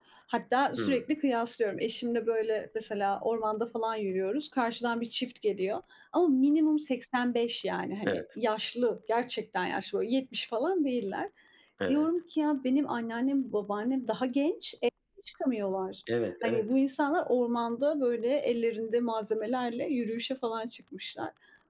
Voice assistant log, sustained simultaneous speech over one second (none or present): none